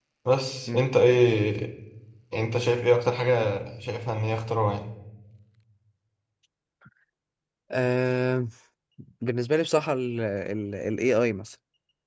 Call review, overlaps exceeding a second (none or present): none